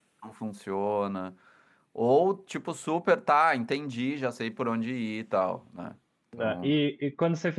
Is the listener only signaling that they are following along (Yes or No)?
No